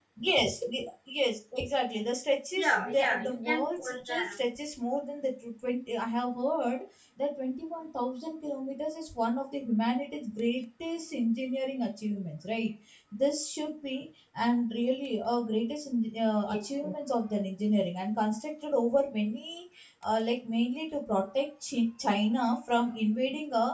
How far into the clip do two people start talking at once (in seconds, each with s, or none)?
2.6 s